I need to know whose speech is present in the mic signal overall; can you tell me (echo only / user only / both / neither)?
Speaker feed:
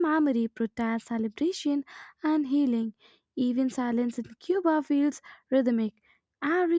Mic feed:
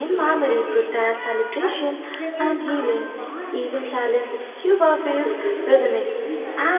both